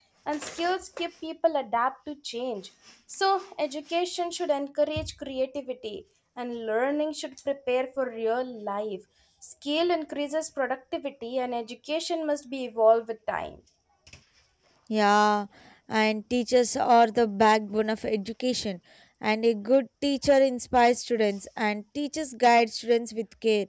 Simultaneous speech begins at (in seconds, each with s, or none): none